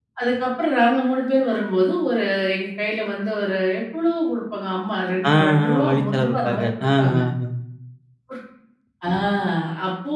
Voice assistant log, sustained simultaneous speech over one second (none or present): present